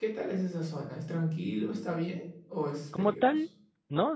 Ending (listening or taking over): taking over